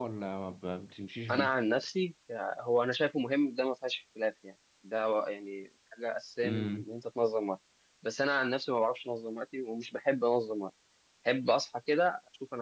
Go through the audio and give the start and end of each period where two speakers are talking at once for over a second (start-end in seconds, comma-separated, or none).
none